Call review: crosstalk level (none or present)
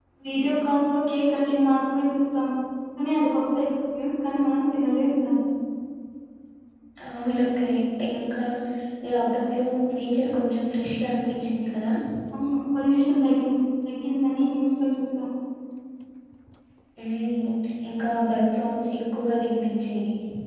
none